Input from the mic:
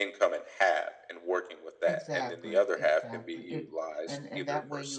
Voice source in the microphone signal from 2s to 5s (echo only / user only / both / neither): both